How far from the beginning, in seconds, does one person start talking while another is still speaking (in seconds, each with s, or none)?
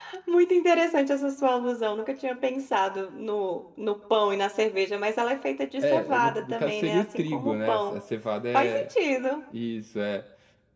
5.8 s